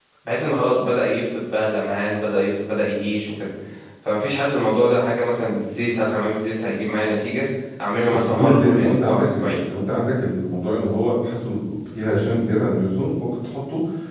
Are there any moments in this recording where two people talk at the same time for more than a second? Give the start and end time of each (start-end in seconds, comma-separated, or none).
8.1-9.6